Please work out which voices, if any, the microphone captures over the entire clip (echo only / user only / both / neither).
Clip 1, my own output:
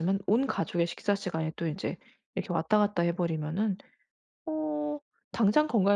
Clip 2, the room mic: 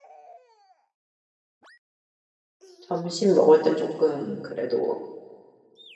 user only